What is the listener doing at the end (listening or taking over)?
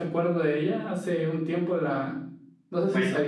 listening